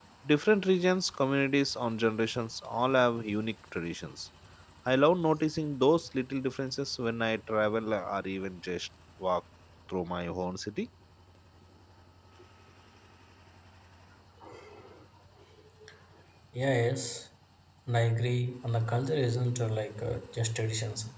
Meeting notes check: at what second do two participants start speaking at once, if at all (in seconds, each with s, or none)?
none